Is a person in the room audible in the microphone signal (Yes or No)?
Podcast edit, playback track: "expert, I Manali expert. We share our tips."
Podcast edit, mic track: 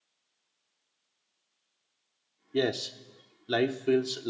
Yes